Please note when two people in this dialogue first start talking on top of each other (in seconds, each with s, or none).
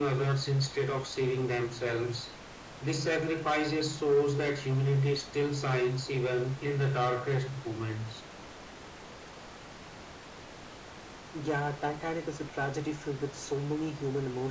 none